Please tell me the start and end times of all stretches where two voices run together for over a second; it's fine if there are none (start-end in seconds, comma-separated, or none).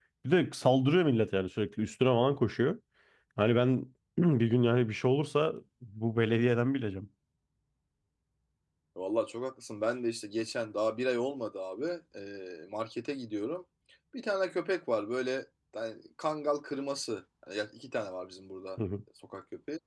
none